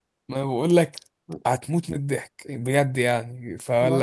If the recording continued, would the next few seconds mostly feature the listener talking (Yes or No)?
No